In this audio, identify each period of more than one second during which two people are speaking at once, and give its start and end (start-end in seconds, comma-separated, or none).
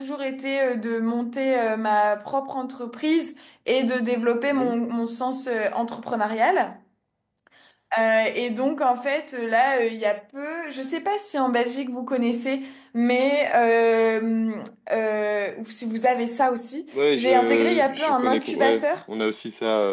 17.2-18.8